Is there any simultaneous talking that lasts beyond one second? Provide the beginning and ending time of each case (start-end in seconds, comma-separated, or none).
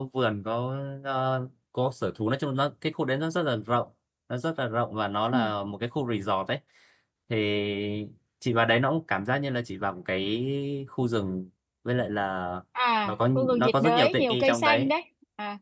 13.0-14.9